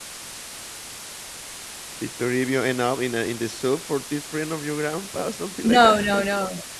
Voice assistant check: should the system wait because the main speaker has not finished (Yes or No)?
No